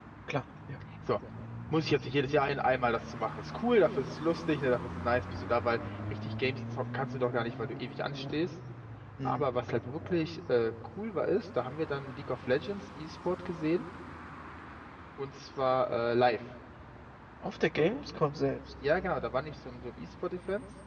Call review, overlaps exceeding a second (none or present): none